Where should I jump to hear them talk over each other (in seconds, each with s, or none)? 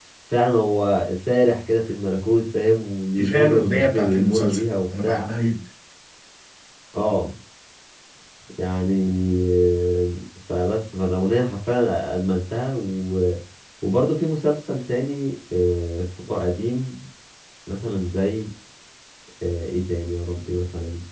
3.2 s